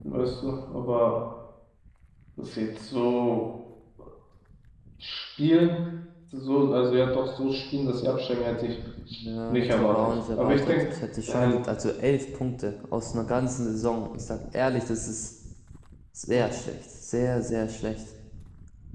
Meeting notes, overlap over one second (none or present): present